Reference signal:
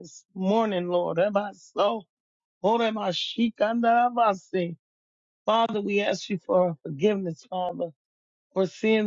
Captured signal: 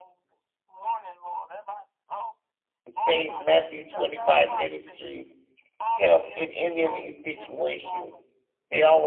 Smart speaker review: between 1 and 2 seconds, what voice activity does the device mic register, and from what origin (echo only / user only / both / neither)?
echo only